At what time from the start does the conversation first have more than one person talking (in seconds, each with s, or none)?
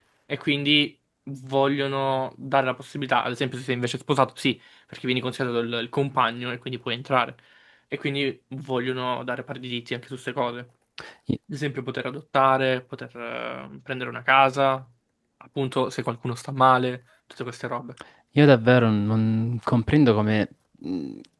none